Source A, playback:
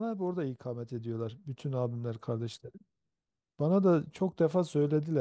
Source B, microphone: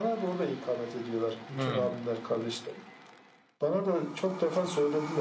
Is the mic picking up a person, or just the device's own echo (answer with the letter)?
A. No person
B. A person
B